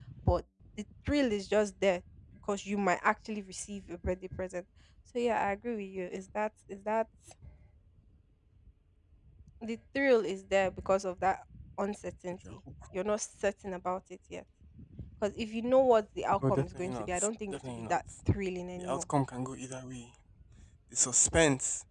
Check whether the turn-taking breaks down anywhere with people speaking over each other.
Yes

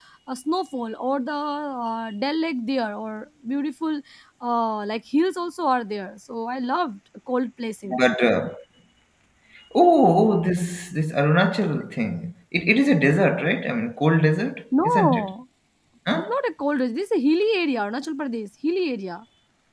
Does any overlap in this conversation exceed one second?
No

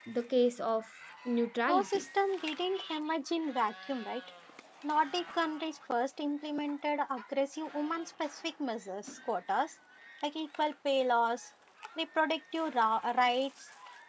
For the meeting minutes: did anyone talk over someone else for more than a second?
No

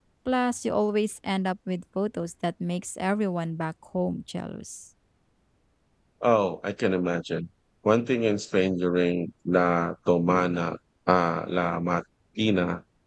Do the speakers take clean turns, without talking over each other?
Yes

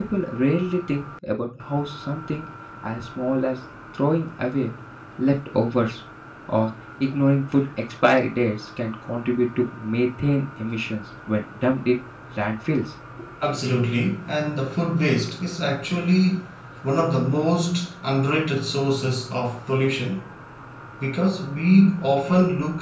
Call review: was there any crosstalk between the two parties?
No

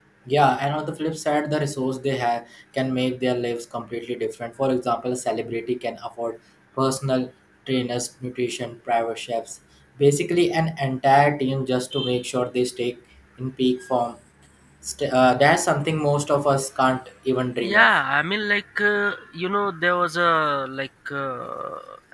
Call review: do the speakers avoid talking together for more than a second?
Yes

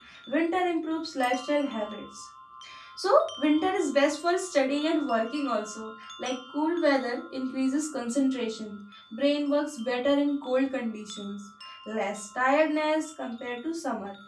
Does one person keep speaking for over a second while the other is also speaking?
No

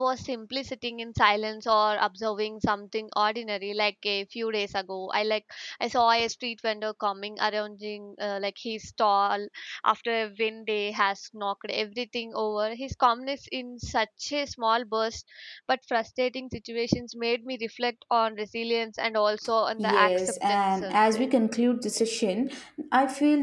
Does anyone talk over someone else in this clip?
Yes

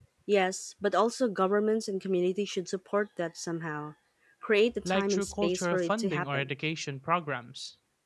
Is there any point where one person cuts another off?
Yes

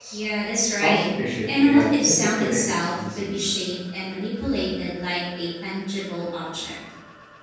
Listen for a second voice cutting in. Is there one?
Yes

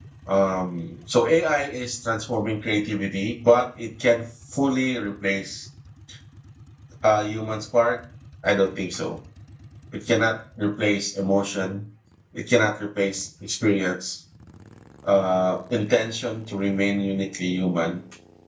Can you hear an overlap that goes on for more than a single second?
No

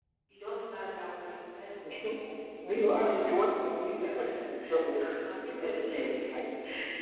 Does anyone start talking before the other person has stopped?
Yes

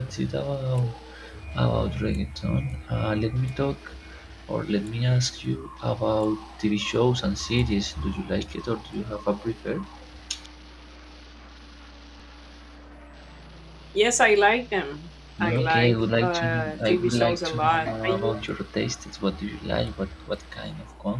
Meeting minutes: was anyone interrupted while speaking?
Yes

